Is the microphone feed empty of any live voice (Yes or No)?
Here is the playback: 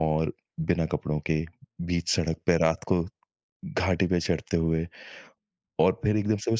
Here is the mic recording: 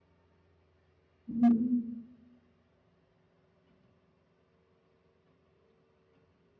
No